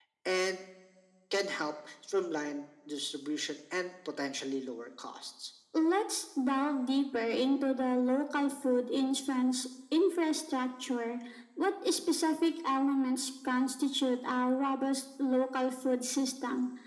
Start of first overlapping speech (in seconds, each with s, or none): none